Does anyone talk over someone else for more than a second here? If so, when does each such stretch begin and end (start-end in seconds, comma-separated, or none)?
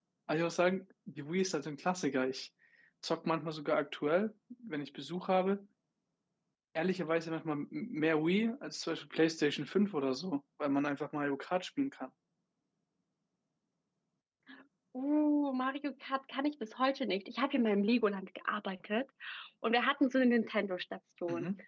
none